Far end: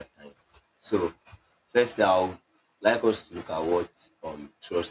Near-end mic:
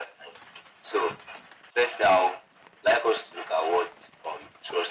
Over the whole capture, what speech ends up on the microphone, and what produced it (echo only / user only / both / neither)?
echo only